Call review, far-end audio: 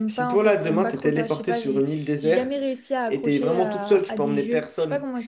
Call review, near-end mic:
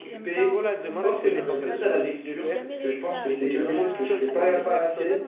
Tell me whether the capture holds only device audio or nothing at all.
No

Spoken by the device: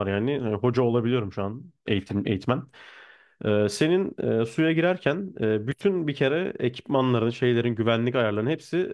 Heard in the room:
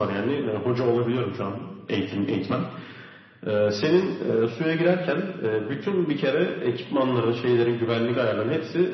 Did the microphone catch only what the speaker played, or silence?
Yes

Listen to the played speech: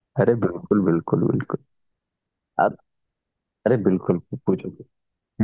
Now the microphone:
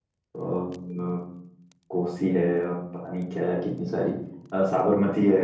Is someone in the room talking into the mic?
Yes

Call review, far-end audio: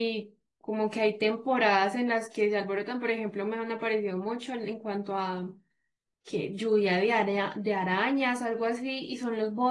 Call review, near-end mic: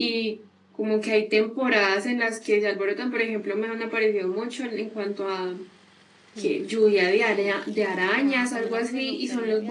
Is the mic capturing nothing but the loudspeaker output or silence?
No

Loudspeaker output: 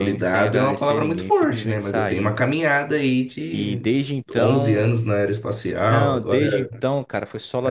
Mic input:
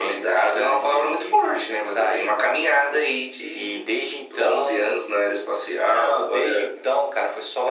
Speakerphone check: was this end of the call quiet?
Yes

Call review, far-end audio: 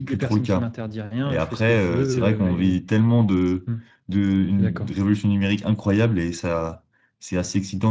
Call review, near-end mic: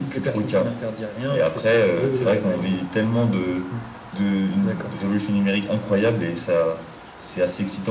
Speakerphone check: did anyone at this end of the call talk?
No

